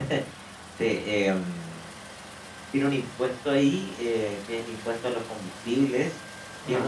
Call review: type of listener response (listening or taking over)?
listening